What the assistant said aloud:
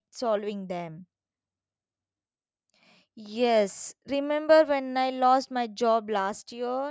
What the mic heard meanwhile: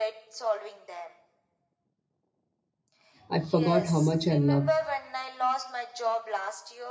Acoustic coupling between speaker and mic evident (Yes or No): Yes